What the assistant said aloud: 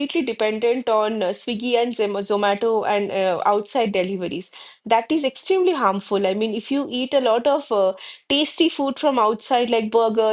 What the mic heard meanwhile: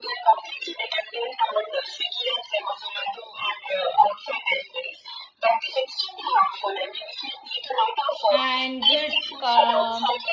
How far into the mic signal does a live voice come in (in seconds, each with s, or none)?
8.3 s